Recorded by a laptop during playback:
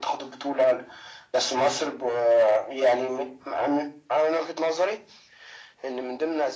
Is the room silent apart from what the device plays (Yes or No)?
Yes